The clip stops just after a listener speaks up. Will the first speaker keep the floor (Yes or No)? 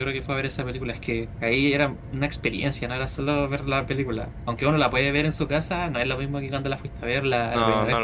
No